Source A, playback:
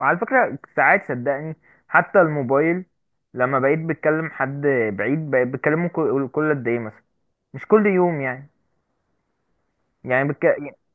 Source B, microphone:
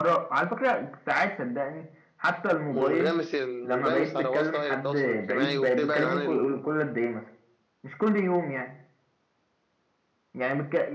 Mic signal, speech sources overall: both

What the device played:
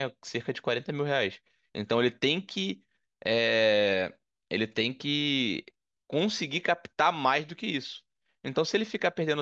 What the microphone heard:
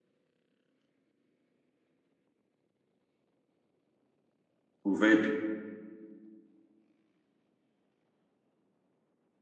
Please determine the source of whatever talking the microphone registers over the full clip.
user only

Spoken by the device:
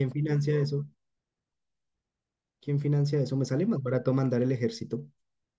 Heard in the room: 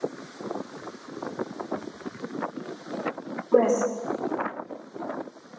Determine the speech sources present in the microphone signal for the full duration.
user only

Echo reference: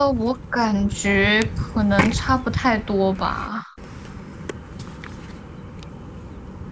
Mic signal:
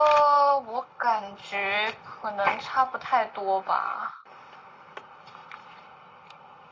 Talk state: echo only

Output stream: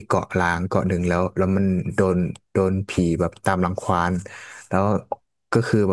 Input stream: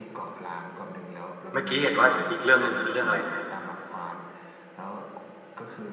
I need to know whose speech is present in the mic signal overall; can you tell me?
both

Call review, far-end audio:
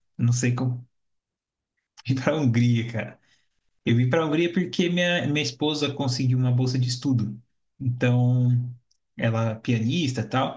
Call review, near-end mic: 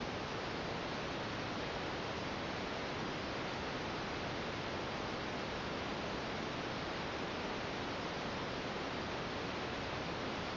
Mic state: neither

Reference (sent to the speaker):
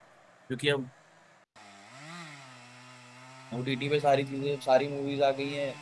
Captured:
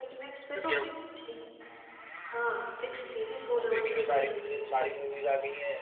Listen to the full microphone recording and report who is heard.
both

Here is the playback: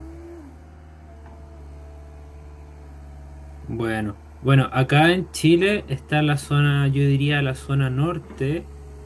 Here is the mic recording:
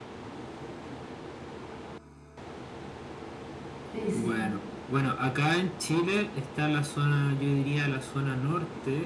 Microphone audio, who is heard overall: both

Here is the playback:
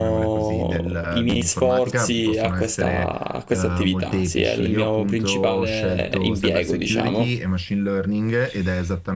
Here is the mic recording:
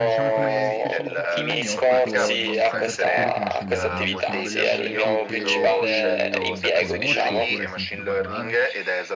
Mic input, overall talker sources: both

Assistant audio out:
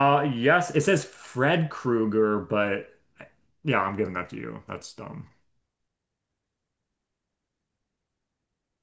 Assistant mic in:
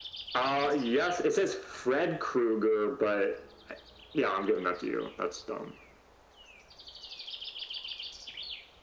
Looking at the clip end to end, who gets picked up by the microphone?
echo only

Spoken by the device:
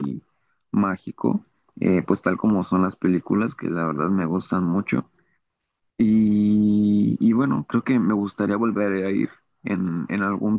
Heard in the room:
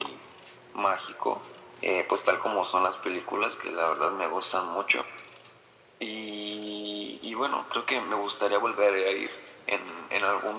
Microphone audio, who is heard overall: echo only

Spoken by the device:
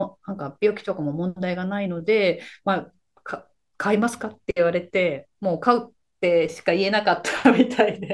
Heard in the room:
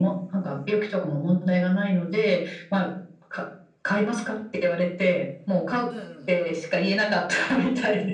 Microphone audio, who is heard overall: both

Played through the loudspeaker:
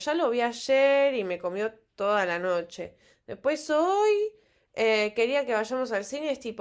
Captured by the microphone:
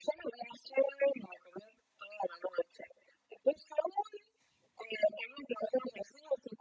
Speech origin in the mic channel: echo only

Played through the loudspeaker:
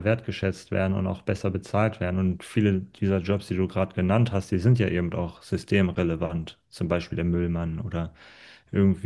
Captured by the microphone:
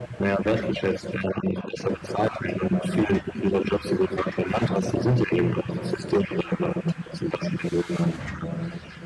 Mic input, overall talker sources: echo only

